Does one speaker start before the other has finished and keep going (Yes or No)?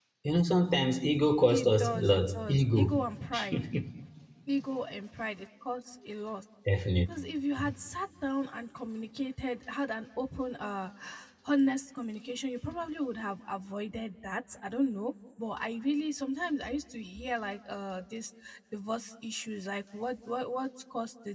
Yes